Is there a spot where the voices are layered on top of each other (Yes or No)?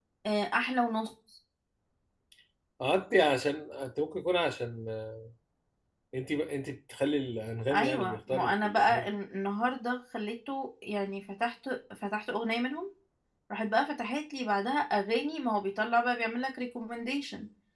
Yes